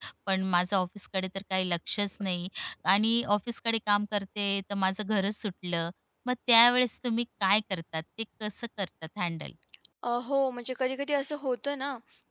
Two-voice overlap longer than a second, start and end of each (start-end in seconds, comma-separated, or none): none